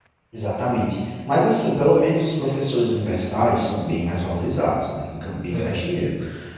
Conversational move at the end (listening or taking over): listening